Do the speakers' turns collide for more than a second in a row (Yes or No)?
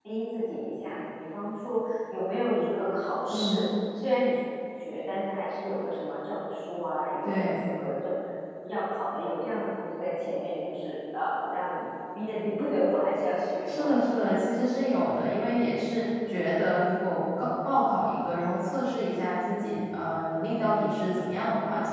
No